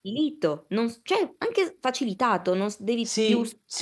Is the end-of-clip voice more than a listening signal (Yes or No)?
Yes